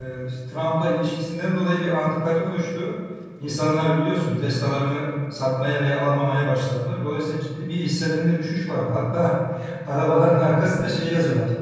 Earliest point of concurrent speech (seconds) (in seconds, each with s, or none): none